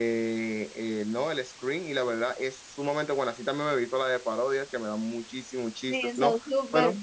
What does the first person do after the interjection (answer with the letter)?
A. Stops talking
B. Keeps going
A